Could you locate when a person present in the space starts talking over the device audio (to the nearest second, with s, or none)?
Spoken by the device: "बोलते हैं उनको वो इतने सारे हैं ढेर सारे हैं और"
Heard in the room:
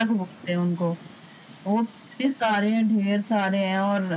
none